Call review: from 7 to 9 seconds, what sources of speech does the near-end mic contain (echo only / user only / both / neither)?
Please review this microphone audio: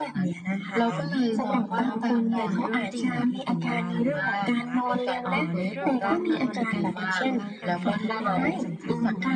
both